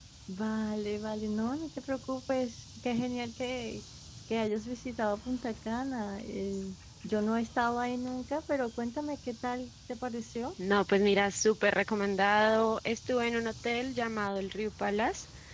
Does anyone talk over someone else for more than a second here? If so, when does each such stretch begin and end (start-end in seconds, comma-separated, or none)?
none